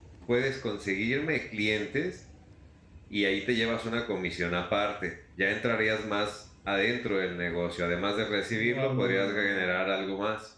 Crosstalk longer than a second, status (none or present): present